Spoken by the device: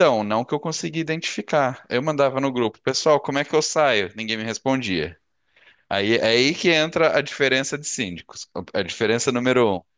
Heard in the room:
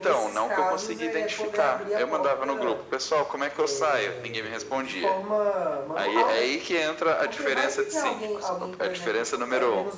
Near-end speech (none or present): present